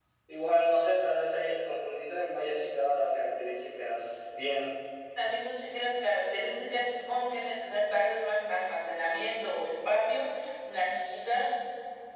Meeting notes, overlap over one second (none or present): none